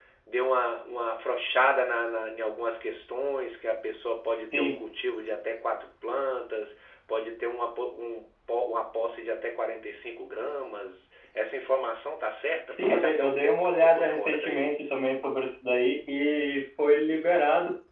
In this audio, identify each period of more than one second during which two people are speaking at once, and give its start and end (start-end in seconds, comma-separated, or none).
12.8-14.7